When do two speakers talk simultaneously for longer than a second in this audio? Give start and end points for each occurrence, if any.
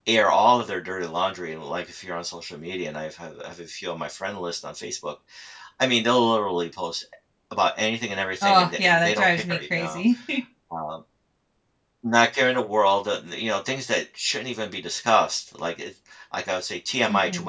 8.4-10.0

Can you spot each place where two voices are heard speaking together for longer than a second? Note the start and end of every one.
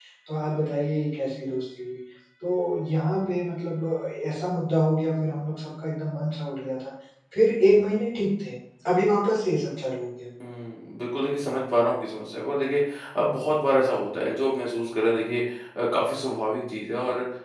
none

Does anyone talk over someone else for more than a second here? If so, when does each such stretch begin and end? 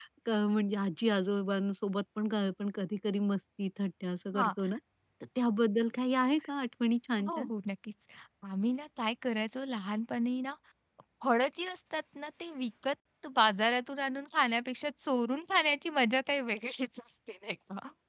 none

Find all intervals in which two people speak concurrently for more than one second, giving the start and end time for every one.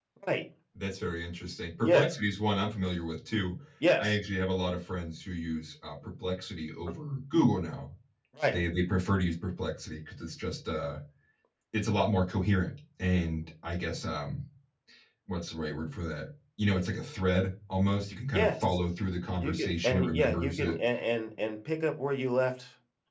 19.4-20.8

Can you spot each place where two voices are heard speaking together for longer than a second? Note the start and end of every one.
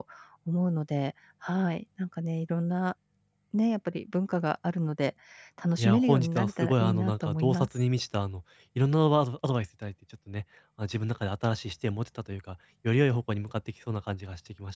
5.8-7.7

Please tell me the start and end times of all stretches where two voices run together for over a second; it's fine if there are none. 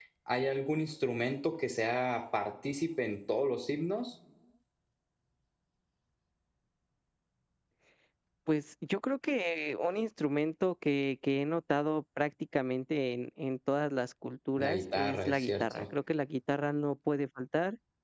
14.6-15.8

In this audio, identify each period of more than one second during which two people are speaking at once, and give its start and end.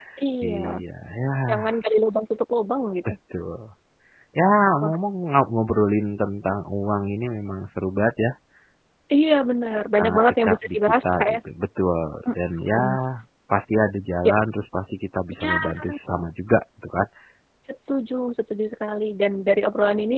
10.0-11.4

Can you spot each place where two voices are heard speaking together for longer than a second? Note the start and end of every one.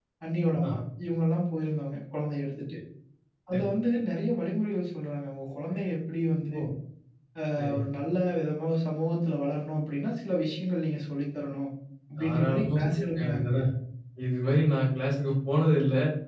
12.2-13.5

